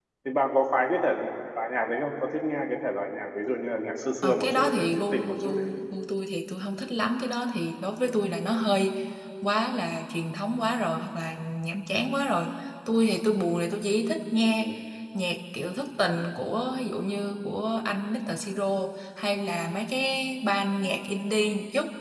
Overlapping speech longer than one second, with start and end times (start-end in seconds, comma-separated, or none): 4.2-5.6